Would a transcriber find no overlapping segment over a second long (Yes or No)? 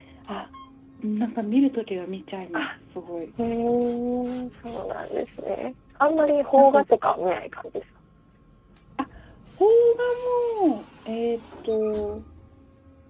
Yes